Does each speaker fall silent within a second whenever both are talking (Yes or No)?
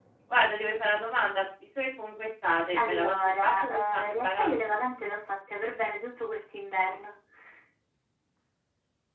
No